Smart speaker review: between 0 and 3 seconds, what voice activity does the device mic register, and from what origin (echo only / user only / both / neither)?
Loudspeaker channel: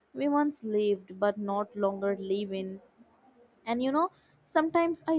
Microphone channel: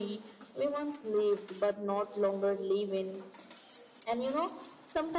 echo only